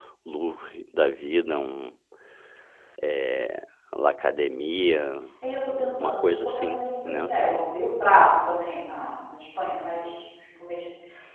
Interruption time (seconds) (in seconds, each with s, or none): 6.0 s